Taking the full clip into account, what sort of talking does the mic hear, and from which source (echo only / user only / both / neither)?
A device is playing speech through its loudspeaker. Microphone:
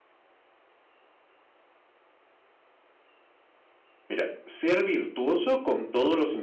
user only